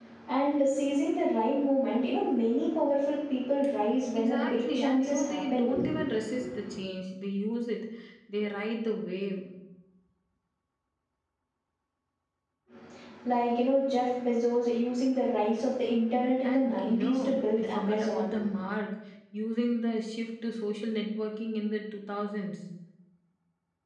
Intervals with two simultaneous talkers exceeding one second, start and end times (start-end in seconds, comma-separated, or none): 4.1-5.9, 16.4-18.3